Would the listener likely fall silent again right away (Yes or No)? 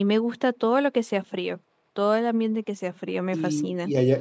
No